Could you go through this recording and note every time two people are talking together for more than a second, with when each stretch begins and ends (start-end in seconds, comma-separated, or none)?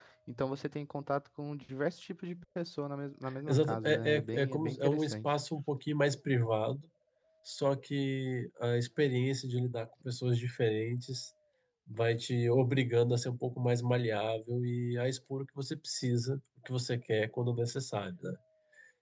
3.5-5.3